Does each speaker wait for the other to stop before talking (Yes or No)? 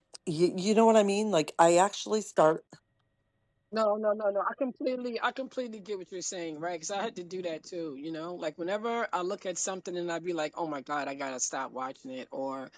Yes